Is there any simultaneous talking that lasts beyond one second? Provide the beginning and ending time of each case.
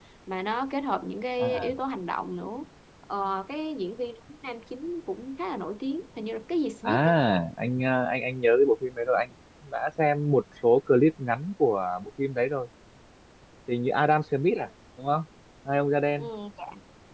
none

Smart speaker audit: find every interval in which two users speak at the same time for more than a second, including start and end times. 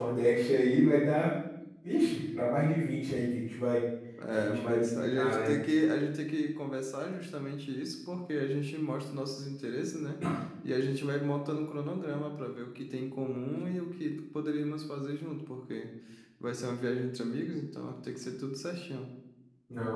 4.3-5.5

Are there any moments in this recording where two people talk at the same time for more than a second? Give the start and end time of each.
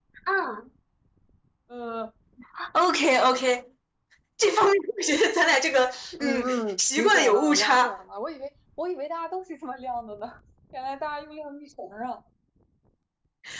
6.2-8.0

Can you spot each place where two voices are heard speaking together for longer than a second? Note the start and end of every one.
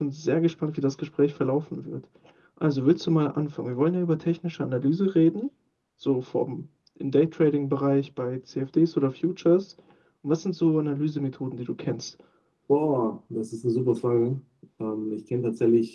none

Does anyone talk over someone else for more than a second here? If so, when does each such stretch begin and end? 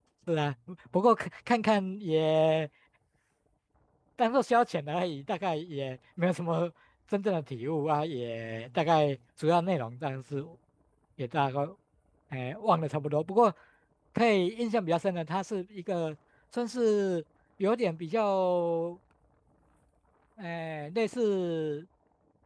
none

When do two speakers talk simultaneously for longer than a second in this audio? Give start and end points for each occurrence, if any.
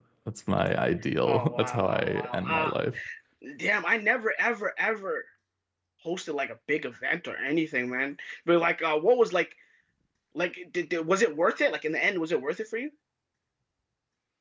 1.2-2.7

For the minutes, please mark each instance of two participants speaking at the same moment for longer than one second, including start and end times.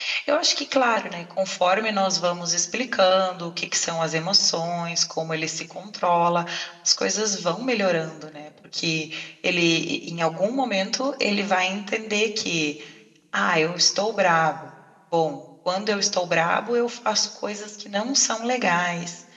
none

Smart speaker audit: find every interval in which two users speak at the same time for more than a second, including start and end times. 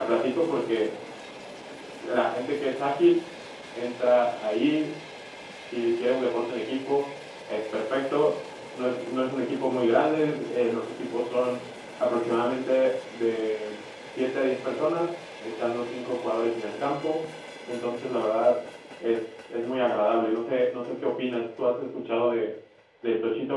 none

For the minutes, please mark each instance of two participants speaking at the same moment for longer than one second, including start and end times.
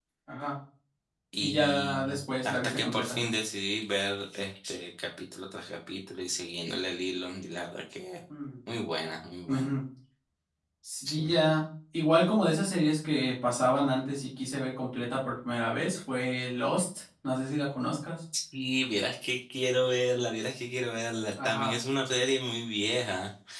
1.4-3.2

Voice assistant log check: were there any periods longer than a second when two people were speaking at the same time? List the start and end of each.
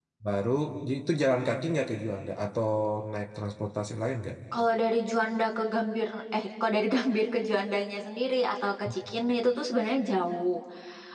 none

